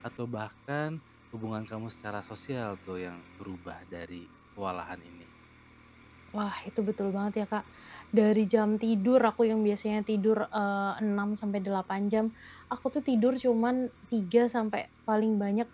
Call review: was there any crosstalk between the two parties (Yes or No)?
No